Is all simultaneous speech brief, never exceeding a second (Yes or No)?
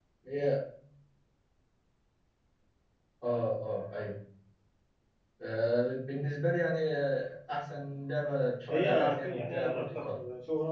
No